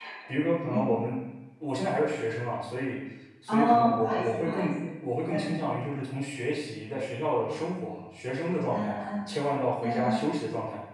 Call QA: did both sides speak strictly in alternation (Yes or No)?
No